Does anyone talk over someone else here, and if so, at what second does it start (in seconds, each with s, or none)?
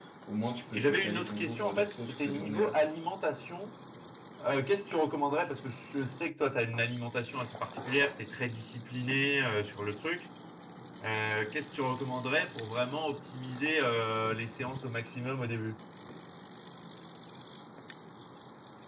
0.7 s